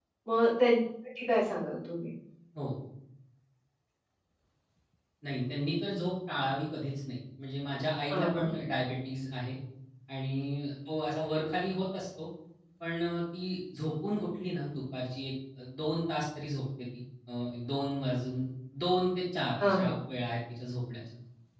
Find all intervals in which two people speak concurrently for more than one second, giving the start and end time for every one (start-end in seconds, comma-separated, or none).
none